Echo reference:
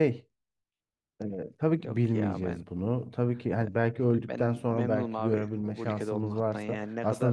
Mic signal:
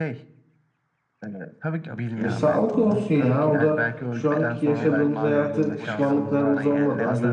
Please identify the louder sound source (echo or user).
user